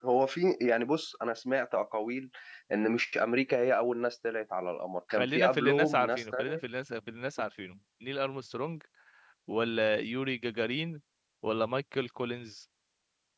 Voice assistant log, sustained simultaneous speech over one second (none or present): present